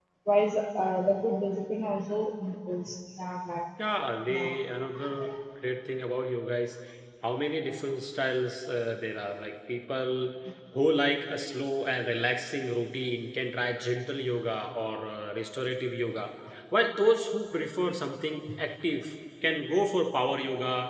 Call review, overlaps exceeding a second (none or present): none